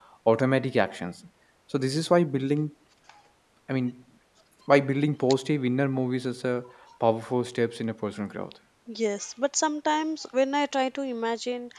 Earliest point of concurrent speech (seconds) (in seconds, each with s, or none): none